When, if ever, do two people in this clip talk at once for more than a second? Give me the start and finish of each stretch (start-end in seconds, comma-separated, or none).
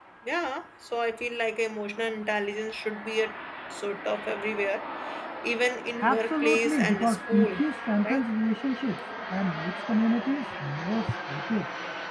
6.0-7.6